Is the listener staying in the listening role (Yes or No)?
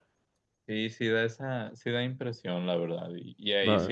Yes